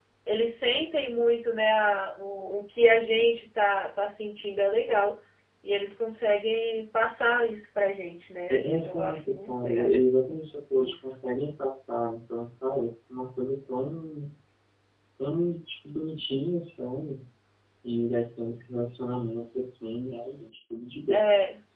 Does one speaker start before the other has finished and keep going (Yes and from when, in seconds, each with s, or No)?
Yes, from 8.5 s